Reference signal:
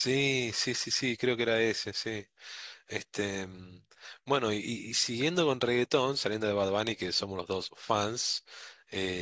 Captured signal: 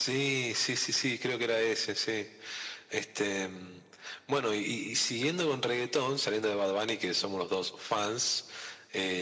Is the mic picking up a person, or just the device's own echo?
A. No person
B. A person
A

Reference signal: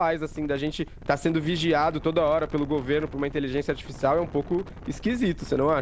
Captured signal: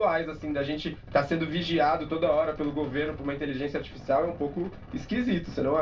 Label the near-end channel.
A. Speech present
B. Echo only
B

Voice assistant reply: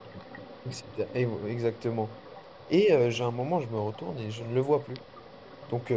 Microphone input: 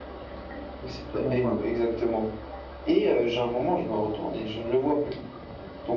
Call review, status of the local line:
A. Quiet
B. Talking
B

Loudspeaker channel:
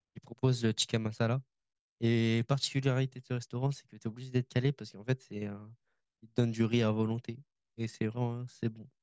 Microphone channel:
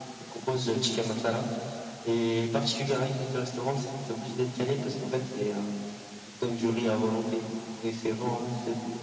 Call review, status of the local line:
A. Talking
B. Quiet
B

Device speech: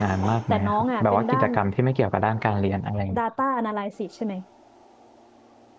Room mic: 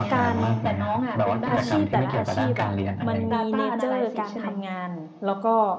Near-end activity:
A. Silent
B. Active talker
B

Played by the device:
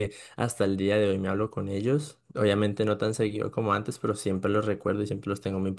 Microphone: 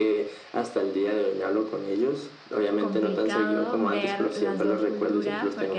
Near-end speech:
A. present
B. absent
A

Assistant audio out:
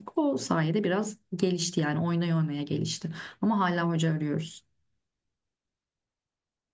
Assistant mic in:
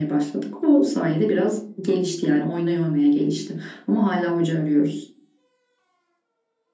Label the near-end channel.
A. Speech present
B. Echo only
B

